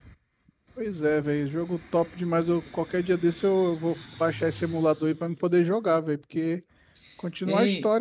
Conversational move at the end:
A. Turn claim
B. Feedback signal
A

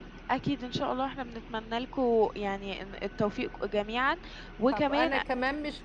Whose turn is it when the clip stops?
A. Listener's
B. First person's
A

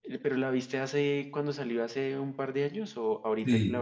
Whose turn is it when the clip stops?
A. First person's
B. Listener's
B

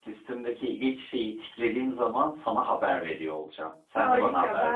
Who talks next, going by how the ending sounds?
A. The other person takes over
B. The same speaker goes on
A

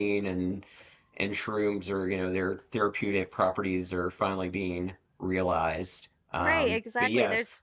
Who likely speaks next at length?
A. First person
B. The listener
B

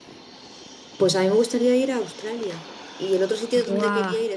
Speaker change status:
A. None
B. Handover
A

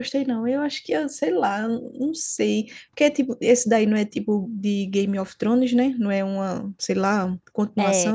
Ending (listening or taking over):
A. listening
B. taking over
B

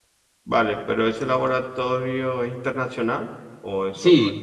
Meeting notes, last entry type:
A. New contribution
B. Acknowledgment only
A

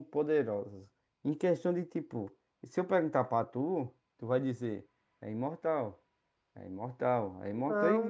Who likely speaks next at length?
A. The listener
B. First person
A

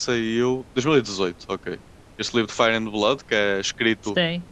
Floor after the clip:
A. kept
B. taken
A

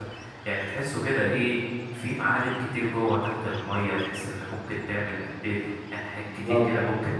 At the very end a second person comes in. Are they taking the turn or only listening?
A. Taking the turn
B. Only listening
B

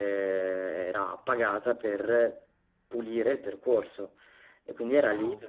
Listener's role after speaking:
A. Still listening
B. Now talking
A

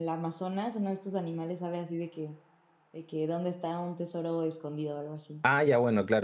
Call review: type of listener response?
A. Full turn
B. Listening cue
A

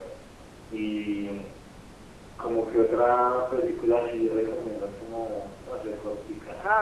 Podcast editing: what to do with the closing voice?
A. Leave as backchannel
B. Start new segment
B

